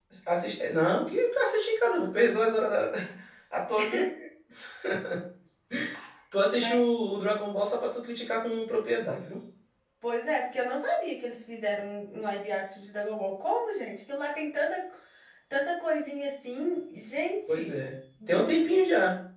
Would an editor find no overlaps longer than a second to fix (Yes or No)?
Yes